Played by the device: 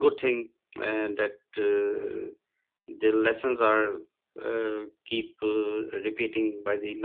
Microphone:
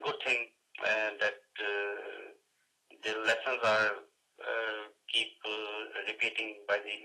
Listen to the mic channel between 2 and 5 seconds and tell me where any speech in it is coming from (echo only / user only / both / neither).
echo only